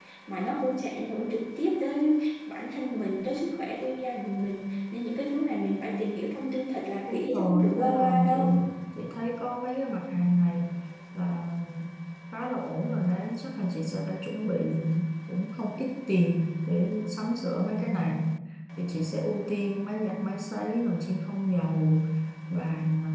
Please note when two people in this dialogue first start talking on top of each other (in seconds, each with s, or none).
7.1 s